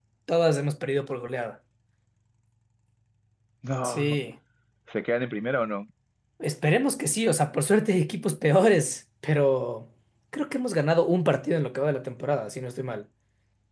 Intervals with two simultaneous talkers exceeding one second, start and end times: none

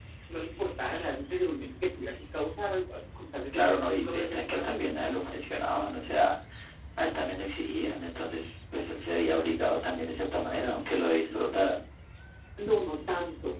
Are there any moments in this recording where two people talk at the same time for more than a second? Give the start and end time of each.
3.5-5.0

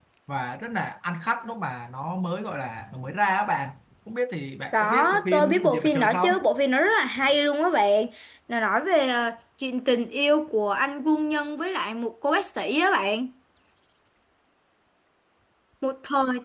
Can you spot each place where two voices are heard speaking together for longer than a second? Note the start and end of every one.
4.7-6.3

